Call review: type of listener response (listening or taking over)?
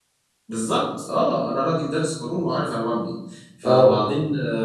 listening